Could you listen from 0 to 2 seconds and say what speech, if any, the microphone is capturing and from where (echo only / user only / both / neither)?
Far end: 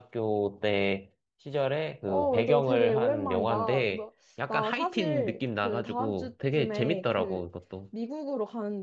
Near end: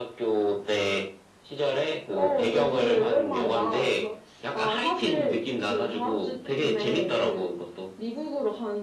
echo only